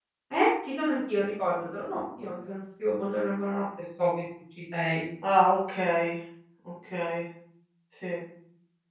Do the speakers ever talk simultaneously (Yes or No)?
No